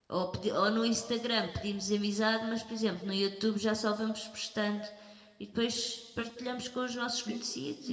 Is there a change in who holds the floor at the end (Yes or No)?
Yes